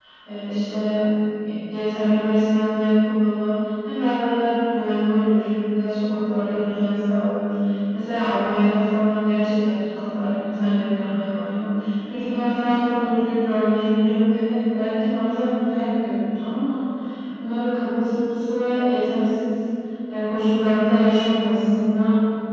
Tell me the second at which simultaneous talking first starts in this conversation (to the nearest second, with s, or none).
none